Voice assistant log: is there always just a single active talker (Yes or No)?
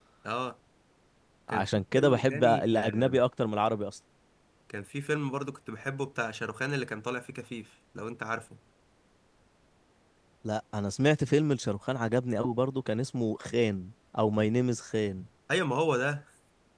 No